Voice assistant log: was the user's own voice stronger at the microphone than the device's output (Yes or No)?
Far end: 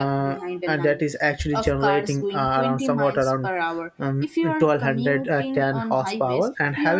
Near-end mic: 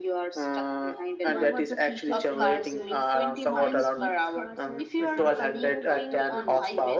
No